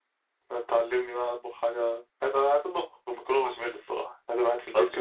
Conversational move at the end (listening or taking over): listening